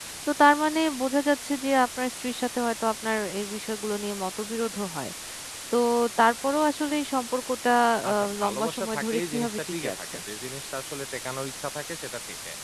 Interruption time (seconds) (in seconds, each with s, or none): 8.1 s